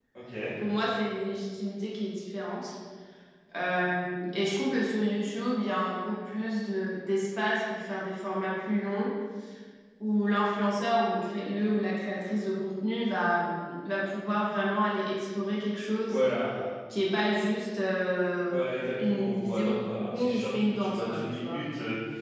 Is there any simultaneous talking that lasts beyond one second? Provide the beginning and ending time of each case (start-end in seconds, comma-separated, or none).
19.0-21.6